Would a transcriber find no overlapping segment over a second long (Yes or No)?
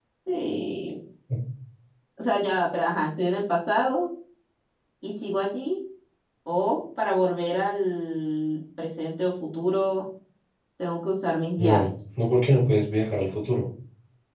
Yes